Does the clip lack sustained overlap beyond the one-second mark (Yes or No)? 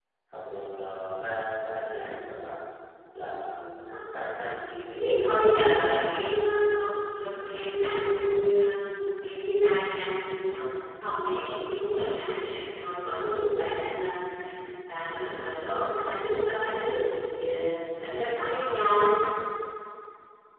No